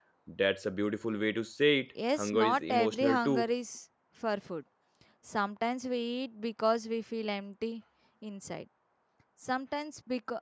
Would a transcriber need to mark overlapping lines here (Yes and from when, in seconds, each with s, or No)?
Yes, from 1.9 s